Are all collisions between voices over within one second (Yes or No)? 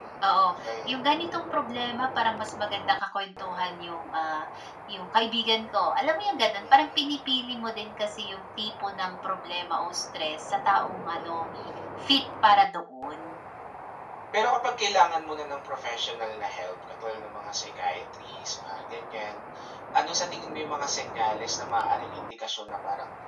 Yes